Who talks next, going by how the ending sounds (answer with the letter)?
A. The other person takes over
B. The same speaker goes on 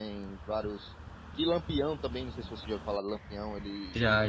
B